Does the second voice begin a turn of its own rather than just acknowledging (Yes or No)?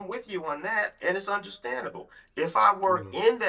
No